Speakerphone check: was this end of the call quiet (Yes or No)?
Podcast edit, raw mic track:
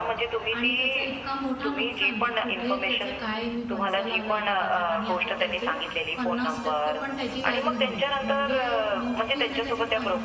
No